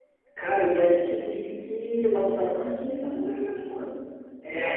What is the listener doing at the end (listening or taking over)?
listening